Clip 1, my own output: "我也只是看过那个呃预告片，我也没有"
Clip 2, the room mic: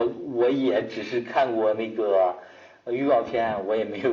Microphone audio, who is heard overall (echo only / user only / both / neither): echo only